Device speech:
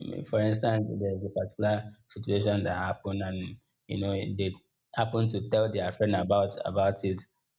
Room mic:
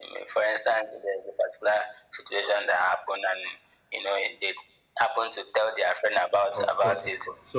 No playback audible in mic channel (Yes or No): No